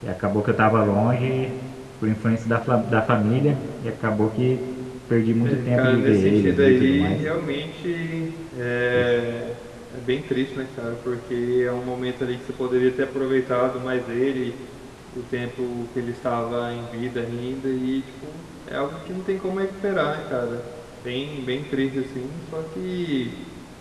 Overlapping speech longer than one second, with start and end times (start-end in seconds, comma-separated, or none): 5.4-7.2